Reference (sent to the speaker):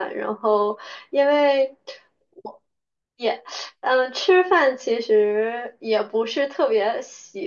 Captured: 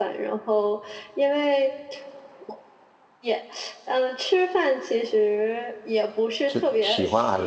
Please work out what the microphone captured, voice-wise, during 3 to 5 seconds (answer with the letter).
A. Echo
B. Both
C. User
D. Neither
A